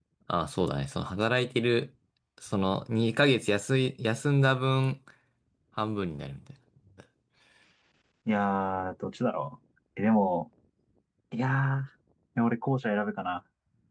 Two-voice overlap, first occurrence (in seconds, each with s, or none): none